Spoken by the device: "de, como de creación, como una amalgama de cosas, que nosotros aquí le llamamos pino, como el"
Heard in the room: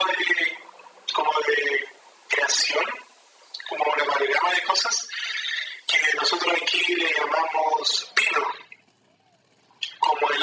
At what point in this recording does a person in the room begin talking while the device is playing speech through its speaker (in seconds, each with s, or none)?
none